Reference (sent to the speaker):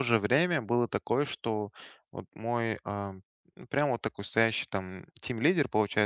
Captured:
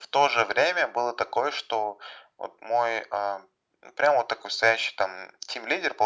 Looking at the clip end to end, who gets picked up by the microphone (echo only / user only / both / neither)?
echo only